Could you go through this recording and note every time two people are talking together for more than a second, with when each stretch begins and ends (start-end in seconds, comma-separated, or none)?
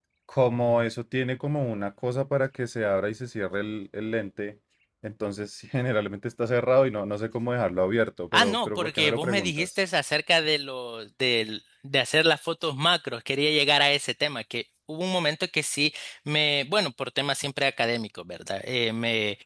8.4-9.7